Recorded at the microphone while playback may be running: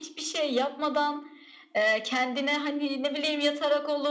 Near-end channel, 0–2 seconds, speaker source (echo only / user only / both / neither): echo only